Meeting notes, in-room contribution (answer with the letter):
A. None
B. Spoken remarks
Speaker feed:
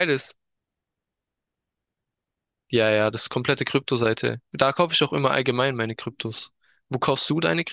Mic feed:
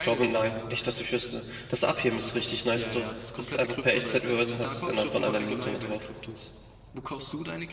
B